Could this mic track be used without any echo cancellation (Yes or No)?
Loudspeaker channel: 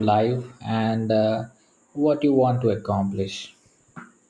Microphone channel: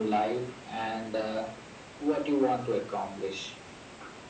No